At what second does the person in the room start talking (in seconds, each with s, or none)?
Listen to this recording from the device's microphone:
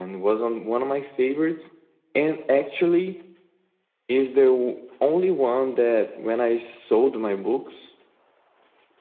none